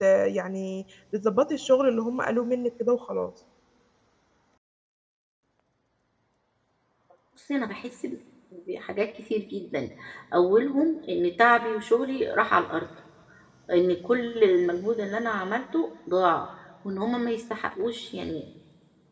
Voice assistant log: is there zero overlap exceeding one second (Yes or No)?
Yes